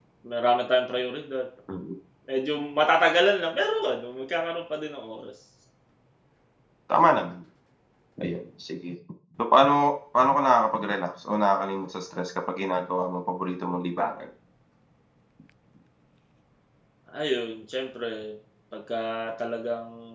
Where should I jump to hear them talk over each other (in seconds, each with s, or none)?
none